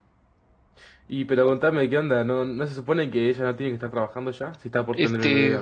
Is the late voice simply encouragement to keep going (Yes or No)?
No